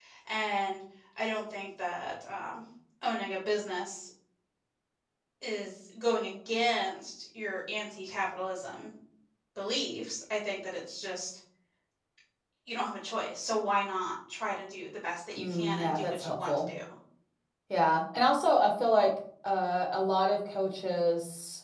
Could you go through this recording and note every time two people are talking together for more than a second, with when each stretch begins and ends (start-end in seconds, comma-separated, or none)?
15.4-16.6